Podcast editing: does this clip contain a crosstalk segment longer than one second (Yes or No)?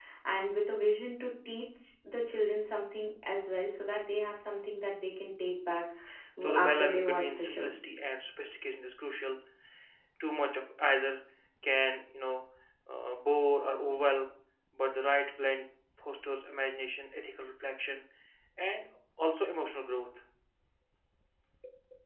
Yes